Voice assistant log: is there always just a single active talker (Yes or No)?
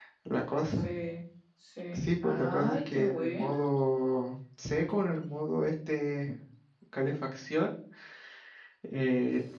No